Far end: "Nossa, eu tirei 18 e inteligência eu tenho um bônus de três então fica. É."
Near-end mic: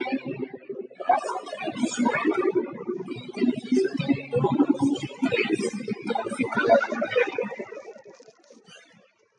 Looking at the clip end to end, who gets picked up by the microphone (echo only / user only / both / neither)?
echo only